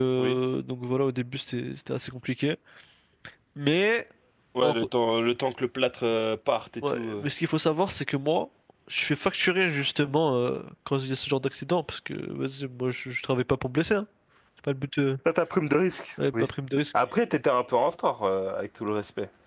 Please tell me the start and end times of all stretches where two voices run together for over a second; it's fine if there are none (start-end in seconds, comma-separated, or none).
none